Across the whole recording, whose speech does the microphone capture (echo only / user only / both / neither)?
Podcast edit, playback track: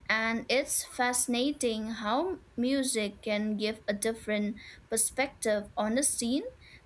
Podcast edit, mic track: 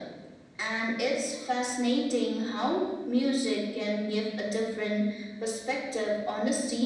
echo only